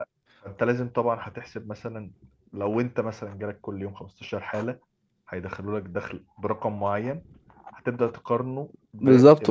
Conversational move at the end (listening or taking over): taking over